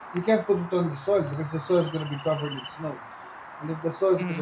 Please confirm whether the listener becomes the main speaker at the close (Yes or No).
No